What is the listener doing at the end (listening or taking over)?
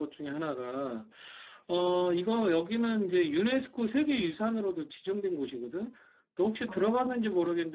listening